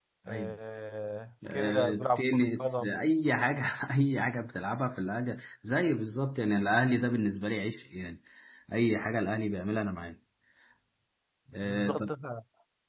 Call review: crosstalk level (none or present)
present